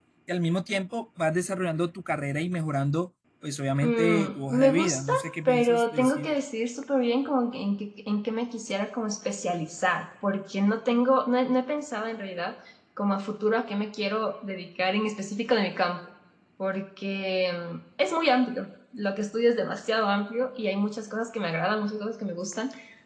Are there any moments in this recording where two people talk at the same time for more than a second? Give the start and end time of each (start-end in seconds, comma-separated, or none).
3.8-6.4